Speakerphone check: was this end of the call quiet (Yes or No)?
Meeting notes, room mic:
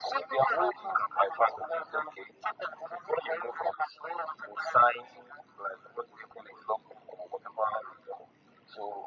Yes